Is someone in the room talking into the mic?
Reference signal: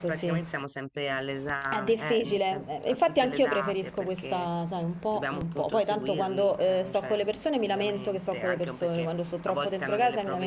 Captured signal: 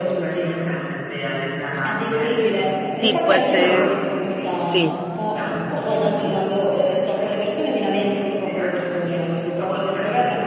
Yes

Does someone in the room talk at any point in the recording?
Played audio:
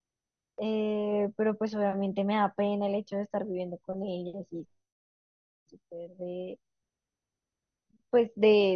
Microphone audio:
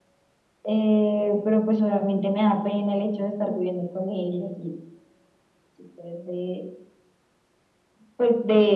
No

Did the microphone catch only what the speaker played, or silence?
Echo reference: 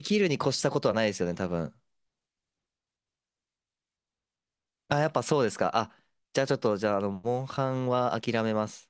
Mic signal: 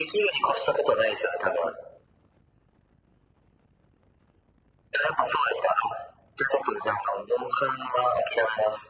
Yes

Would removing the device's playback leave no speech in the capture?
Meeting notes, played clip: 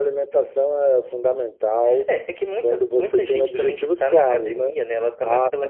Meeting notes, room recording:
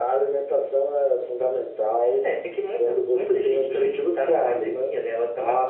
Yes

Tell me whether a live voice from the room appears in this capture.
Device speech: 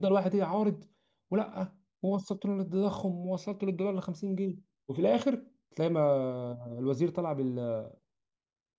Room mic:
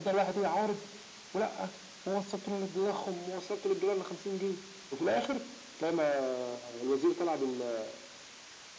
No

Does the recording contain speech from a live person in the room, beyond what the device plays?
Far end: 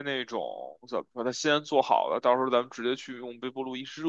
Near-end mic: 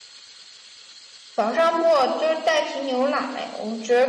Yes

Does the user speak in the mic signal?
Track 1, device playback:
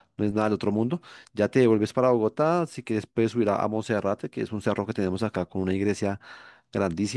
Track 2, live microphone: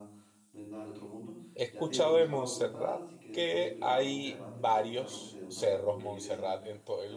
Yes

